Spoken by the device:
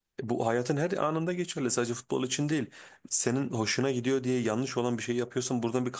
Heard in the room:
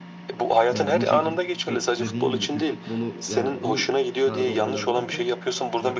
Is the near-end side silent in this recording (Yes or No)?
No